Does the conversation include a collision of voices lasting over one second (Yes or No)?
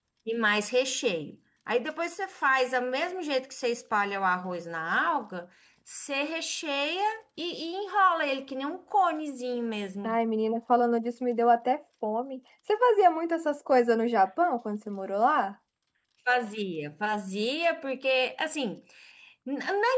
No